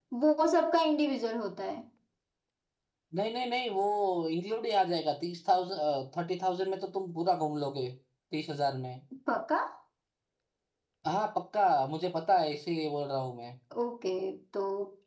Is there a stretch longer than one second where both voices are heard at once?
No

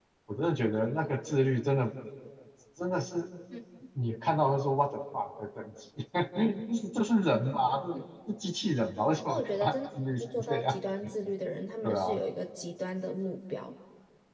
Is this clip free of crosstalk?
No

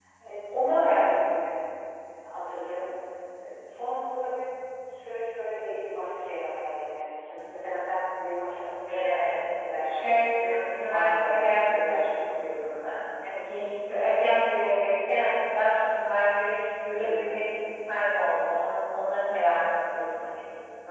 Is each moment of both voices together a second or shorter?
No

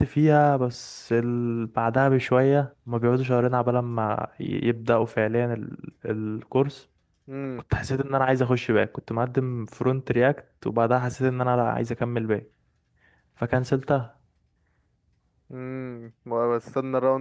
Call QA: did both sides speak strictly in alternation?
Yes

